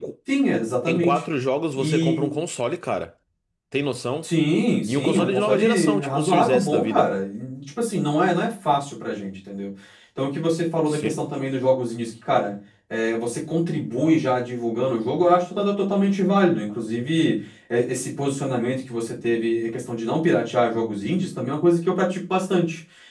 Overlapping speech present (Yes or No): Yes